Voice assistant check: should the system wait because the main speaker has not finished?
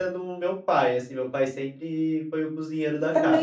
No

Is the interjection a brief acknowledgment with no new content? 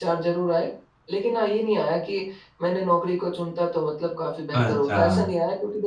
Yes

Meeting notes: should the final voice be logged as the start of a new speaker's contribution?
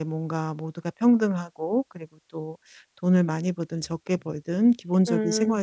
No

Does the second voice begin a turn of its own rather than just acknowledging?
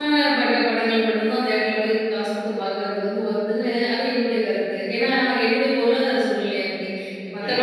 No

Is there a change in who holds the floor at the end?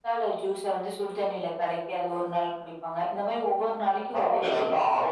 Yes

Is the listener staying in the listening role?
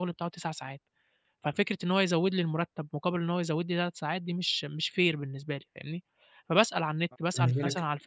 Yes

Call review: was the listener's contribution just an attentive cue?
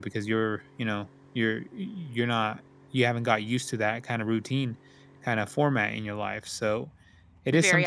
No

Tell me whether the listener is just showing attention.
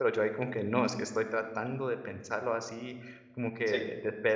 Yes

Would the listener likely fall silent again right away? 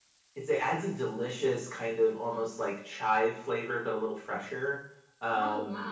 Yes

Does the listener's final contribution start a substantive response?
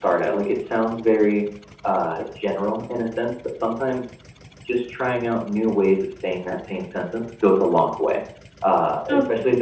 Yes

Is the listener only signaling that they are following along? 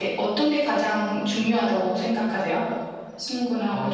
No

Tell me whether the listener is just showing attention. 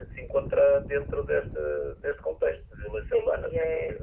No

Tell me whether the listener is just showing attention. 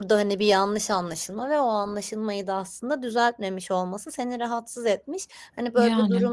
Yes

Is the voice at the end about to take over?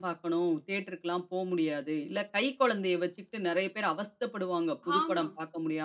No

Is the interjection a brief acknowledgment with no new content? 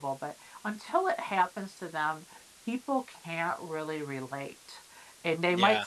Yes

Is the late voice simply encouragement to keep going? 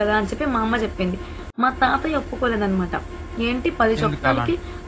Yes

